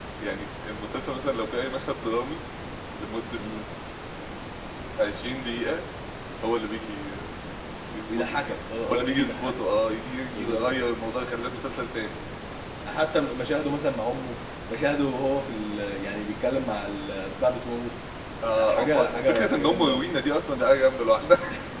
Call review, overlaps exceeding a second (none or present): present